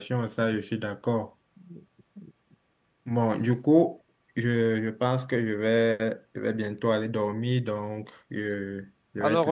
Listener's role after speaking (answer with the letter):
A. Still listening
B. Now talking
B